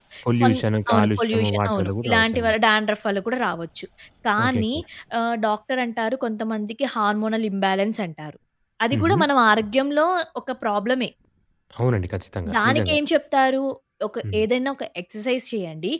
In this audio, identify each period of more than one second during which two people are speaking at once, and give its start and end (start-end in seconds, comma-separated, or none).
0.9-2.5